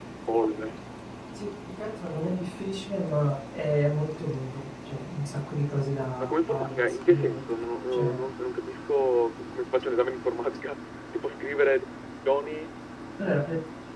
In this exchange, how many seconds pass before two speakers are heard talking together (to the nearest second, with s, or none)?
6 s